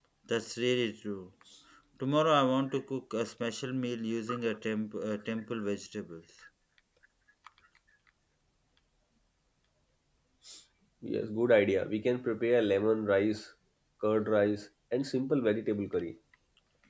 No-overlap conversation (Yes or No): Yes